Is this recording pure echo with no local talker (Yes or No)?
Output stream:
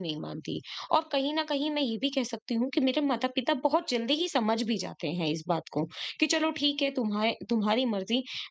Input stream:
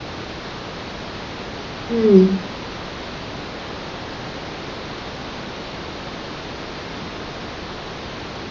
No